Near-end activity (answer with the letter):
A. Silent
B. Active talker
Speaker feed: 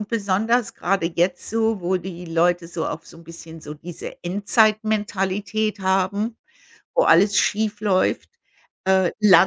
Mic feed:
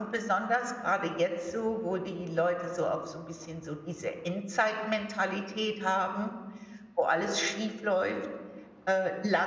A